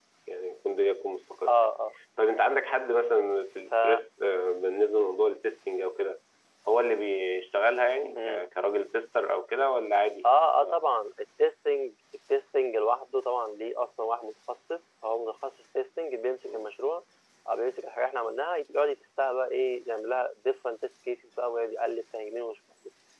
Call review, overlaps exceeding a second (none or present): none